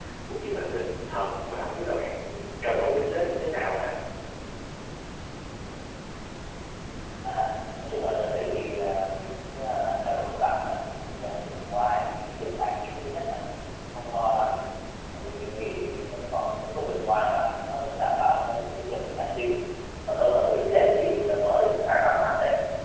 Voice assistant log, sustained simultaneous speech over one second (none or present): none